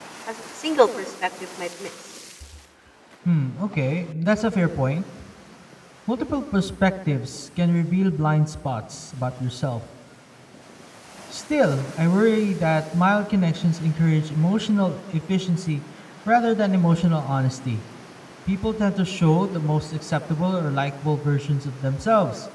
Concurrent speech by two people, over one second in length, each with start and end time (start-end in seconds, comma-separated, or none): none